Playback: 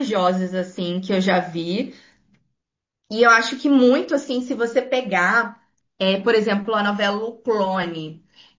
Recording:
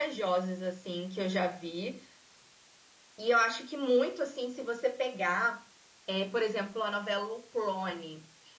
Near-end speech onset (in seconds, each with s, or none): none